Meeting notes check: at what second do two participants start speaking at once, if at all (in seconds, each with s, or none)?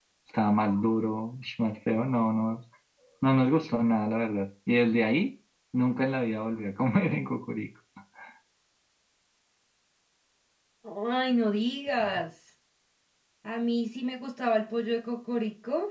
none